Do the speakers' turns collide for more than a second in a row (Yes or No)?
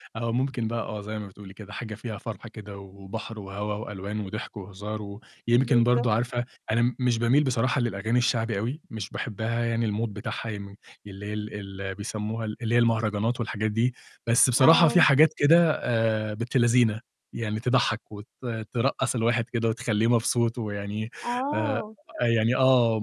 No